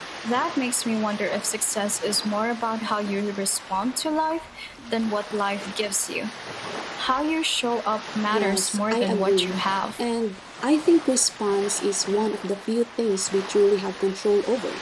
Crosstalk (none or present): present